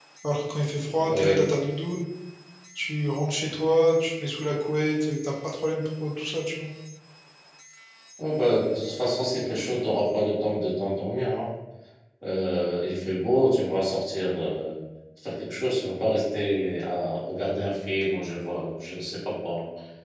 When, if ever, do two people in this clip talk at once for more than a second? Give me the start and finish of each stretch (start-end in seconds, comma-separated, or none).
none